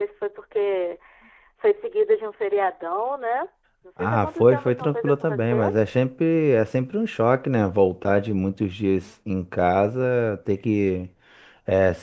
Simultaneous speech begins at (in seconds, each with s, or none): 4.0 s